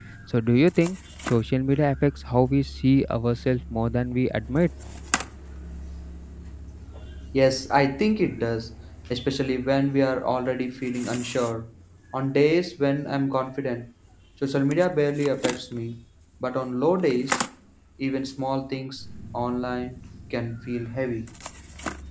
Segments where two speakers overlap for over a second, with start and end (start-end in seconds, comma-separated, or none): none